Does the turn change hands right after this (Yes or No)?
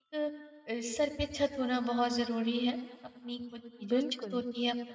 No